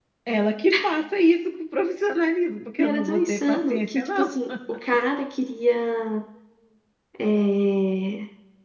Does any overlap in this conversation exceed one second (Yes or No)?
Yes